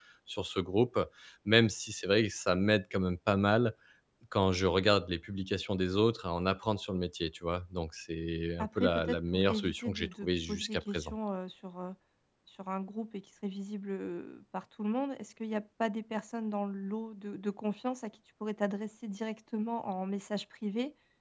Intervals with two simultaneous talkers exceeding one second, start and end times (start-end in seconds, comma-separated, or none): 8.6-11.2